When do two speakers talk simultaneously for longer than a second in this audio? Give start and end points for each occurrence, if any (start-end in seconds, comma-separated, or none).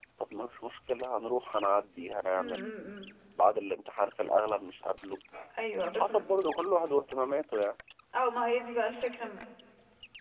none